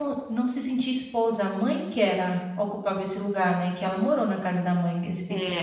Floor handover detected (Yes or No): Yes